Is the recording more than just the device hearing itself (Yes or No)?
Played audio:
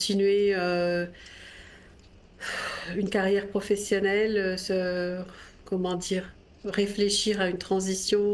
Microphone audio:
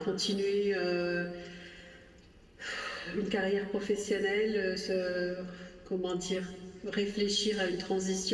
No